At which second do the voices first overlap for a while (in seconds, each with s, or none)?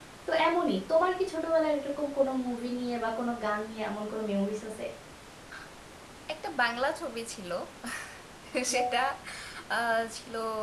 none